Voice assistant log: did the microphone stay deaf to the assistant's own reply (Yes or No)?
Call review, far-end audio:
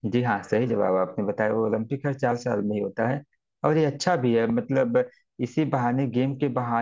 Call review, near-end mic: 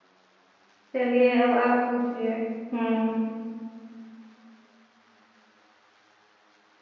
Yes